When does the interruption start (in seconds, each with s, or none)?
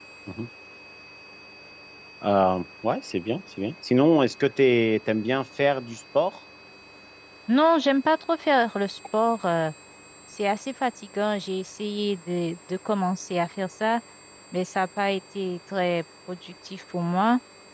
none